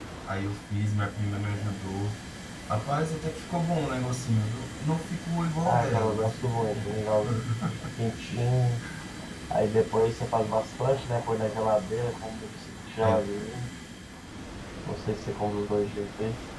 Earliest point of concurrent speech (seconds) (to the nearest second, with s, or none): 6 s